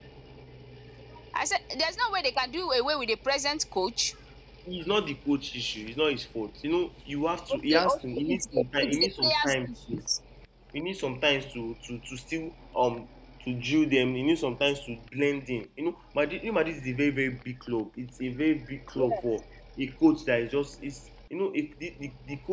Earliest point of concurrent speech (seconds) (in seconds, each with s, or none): 7.7 s